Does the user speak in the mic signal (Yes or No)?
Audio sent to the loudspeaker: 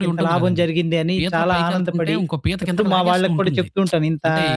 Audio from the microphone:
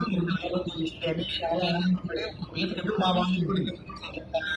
No